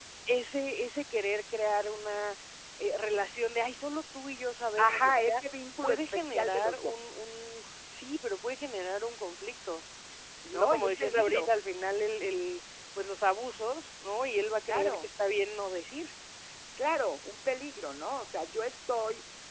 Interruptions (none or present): present